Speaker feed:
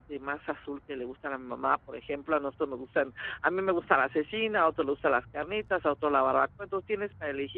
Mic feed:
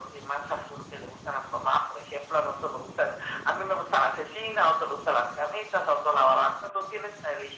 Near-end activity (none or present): none